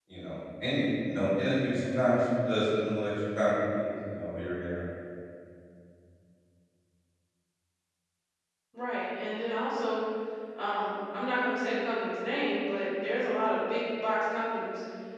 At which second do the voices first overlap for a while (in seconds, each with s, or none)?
none